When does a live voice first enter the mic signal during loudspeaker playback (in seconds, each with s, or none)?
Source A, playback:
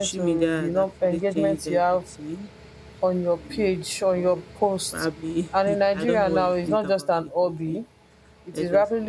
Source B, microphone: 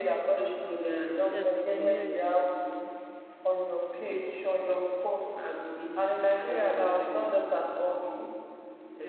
1.3 s